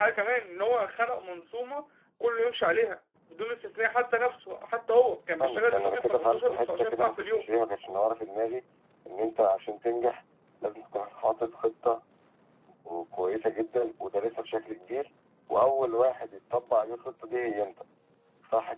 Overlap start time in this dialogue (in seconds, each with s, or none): 5.4 s